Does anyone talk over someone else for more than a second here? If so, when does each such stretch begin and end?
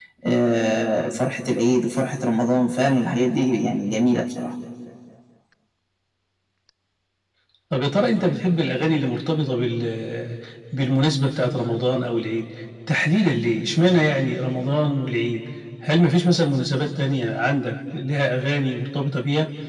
none

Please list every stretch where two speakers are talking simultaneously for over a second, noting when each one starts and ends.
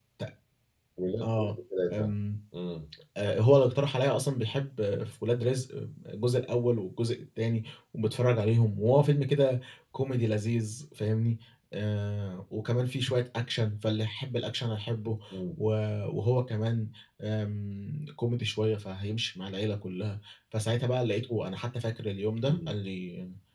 none

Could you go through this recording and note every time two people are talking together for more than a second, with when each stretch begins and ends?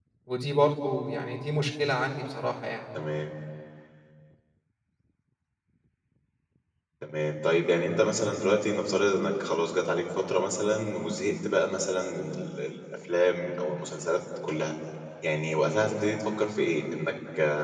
none

